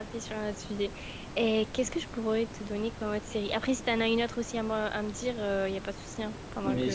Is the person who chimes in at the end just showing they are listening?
No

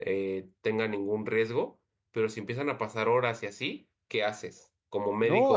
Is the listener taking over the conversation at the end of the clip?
Yes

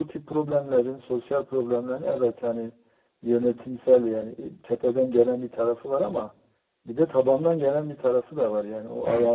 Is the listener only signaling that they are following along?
Yes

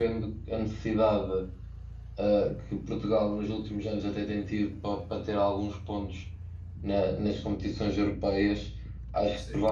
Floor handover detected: No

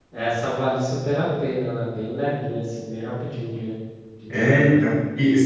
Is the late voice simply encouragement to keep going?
No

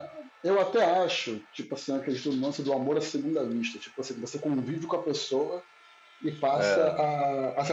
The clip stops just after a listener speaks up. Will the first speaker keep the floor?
Yes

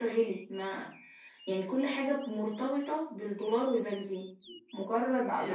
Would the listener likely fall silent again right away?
Yes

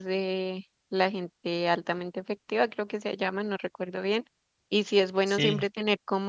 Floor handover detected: No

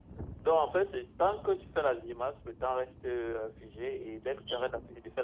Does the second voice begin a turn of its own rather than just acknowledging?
No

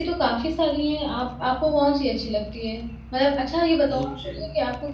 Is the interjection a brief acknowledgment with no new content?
Yes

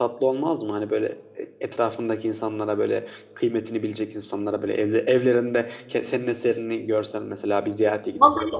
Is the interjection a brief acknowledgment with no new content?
No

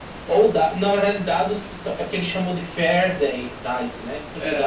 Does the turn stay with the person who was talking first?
Yes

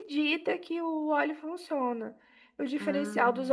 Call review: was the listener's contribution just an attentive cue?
Yes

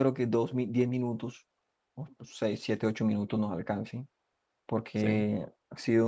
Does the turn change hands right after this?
No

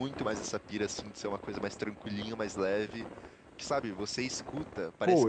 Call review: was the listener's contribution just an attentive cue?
No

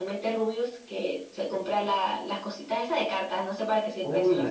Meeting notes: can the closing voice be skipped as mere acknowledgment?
No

